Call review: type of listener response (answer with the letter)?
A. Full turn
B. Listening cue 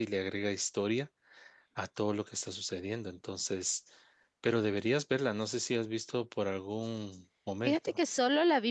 A